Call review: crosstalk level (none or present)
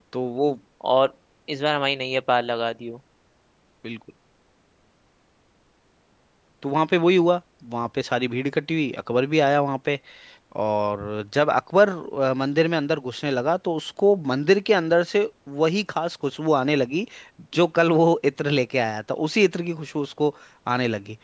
none